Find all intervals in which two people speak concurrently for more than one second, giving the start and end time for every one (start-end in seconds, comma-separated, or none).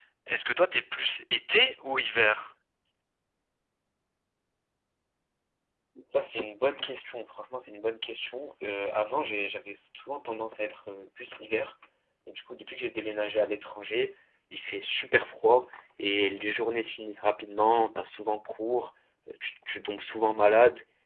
none